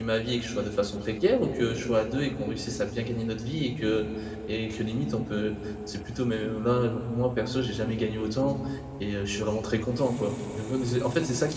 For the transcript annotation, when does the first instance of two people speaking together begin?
none

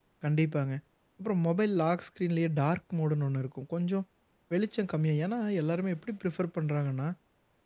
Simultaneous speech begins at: none

